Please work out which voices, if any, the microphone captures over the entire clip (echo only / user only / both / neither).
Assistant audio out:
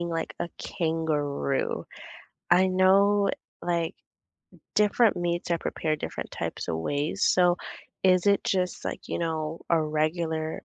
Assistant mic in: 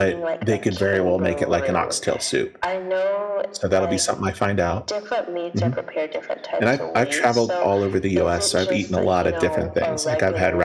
both